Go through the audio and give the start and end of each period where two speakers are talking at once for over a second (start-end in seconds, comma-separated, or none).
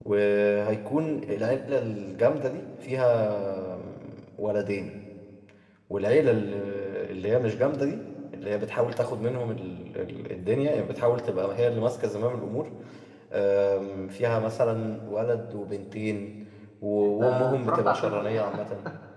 17.2-18.6